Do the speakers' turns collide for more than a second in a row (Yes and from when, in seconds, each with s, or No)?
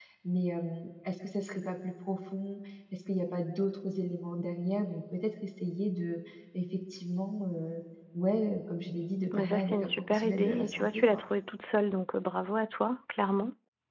Yes, from 9.3 s